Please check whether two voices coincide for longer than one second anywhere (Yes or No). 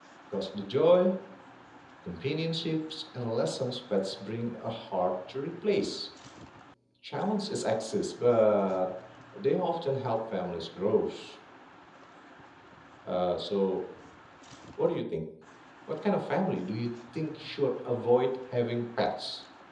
No